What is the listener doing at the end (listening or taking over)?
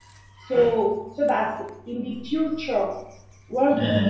listening